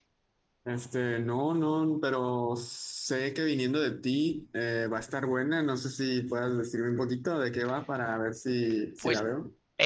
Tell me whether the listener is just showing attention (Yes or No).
No